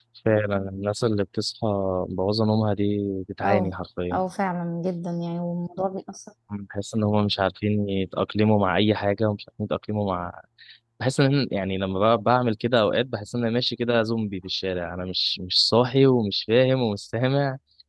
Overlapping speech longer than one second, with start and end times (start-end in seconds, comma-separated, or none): none